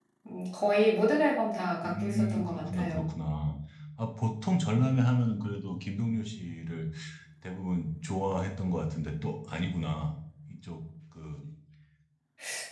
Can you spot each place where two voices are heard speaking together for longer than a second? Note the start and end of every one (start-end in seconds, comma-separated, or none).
1.9-3.0